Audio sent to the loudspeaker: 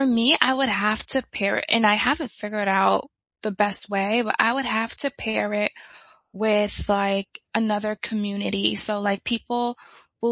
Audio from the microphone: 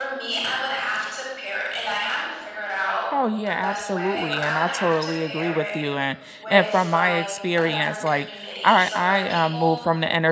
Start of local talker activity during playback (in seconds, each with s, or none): 3.1 s